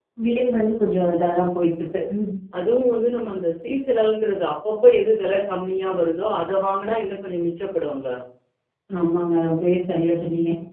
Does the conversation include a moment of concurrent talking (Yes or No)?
No